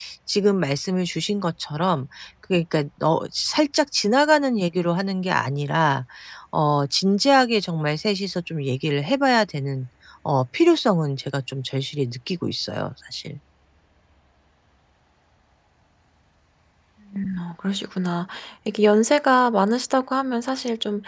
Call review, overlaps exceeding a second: none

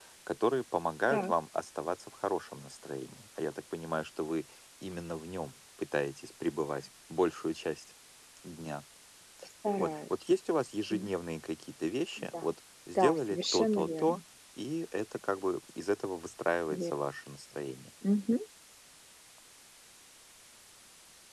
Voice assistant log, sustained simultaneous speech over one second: present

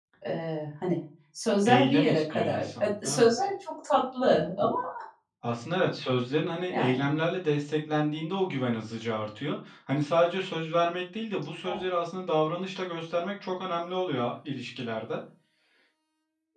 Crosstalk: present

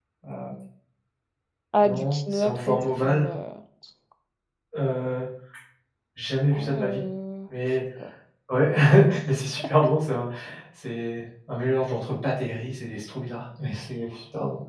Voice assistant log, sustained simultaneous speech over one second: present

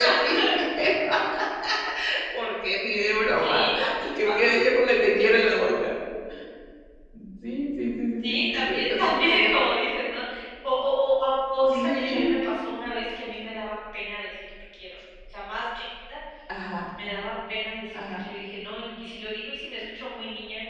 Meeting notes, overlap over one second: present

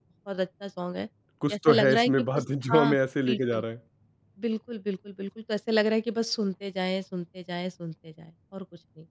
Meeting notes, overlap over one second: present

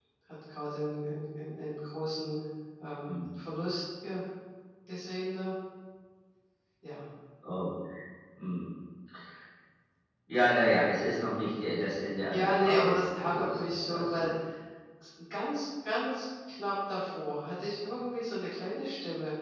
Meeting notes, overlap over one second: present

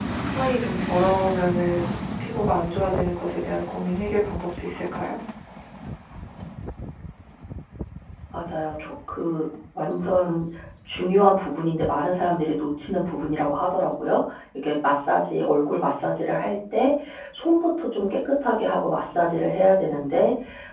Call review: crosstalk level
none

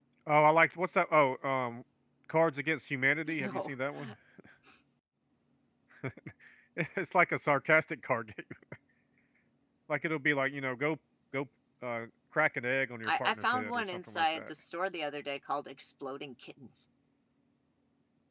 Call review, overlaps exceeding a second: present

